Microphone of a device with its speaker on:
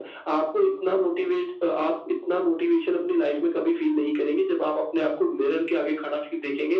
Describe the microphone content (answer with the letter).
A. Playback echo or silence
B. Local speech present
A